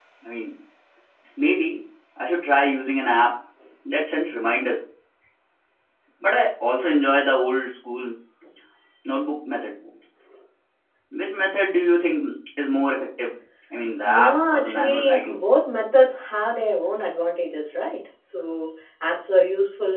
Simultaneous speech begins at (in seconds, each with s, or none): 14.0 s